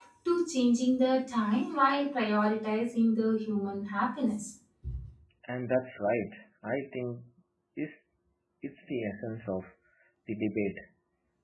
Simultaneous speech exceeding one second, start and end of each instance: none

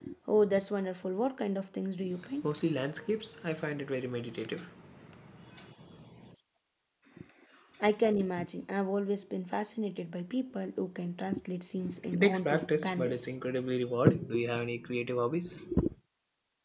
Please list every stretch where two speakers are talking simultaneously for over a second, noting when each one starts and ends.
12.1-13.3

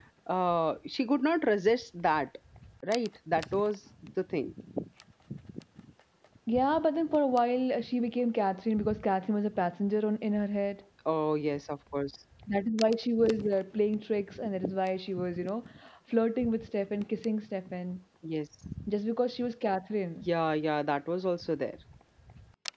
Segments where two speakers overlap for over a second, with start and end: none

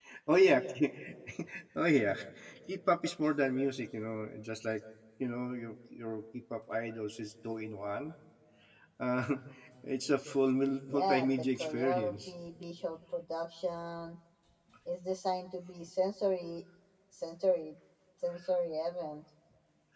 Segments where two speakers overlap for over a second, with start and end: 10.9-12.3

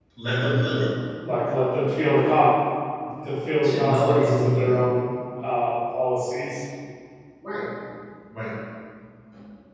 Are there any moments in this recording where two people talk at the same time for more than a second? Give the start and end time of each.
3.6-4.8

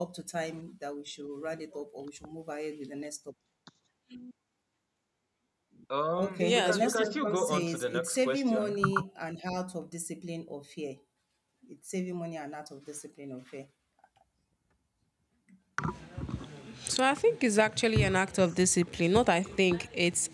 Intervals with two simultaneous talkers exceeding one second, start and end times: 6.2-8.8

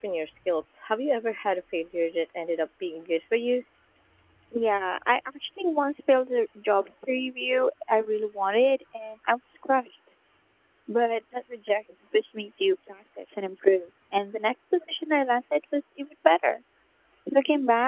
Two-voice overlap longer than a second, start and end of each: none

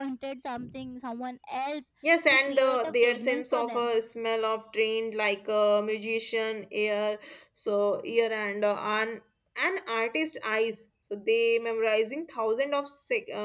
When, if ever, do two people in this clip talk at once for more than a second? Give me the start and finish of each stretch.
2.3-3.9

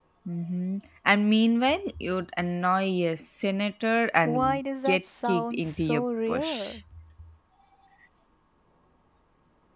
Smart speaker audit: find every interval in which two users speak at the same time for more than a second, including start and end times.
4.2-6.8

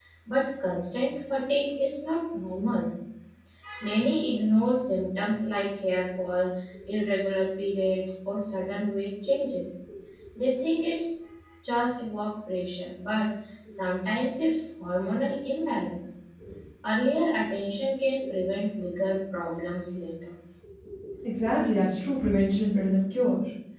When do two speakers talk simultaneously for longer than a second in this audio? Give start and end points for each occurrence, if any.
none

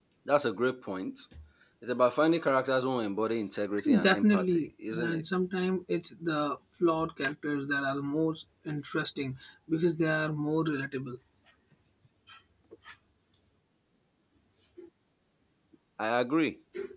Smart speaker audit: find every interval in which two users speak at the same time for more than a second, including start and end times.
4.0-5.2

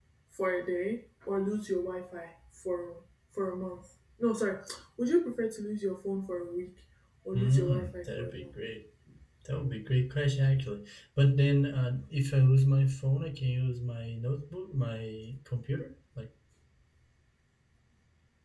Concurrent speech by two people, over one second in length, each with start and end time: 7.3-8.6

